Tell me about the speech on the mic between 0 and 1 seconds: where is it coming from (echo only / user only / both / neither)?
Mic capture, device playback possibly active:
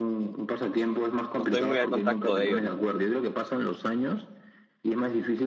echo only